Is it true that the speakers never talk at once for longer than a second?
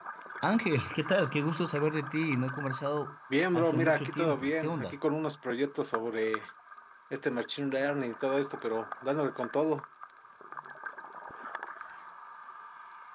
No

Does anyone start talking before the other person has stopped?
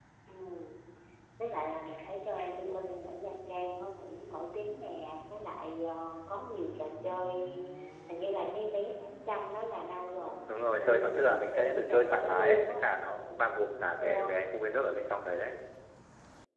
Yes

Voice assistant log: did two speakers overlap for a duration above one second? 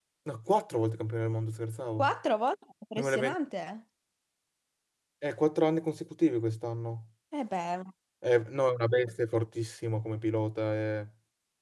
No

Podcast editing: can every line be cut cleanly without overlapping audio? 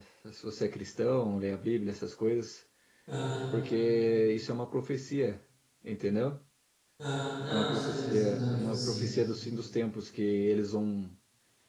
No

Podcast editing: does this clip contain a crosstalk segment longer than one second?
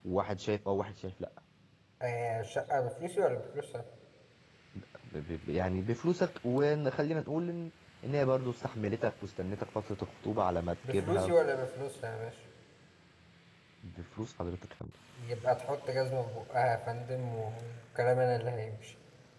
No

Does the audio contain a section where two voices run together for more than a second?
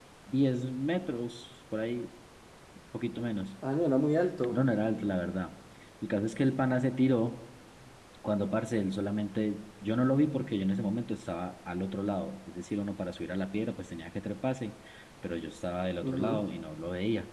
No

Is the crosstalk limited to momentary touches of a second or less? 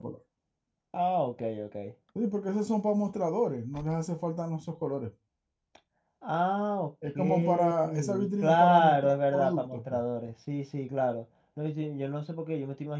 No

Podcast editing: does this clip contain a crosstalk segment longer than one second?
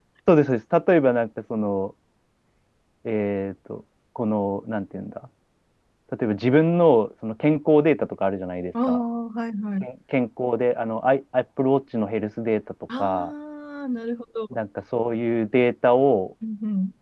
No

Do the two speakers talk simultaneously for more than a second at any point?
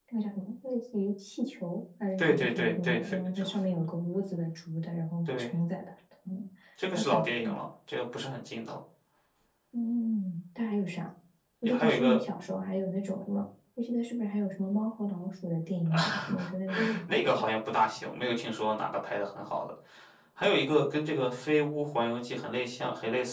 Yes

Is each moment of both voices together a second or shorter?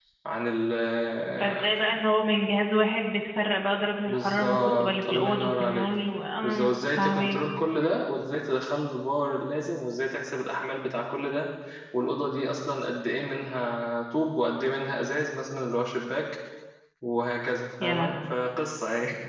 No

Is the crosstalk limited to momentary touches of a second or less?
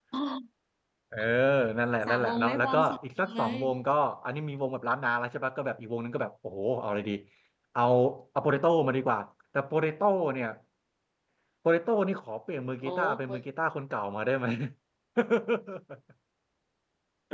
No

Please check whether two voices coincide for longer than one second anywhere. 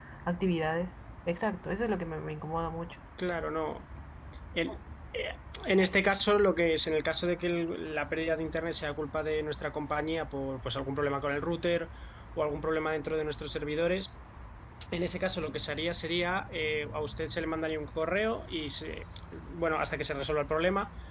No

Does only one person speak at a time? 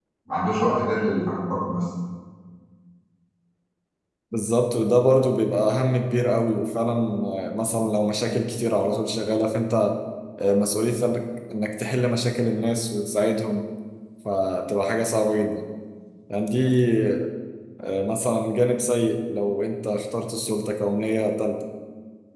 Yes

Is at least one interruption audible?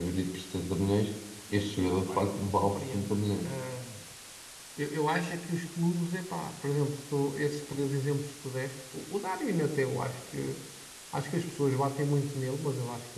Yes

